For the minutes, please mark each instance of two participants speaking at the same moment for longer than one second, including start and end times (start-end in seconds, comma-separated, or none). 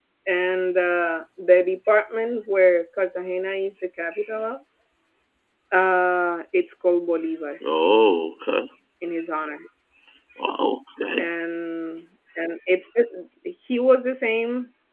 none